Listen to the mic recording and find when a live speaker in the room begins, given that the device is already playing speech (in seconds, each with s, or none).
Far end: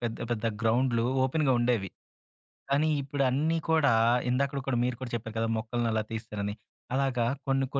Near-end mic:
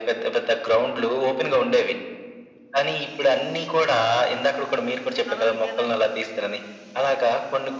5.3 s